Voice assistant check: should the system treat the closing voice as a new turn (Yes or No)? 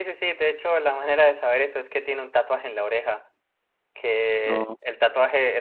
No